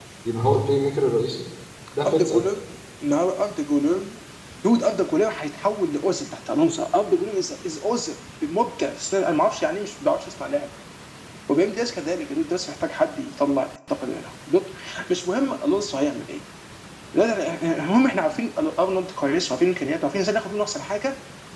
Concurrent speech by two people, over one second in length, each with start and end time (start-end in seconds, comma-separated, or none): none